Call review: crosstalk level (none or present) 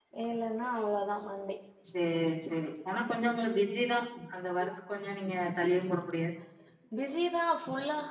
none